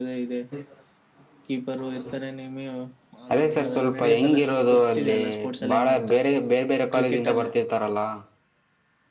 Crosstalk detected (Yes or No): Yes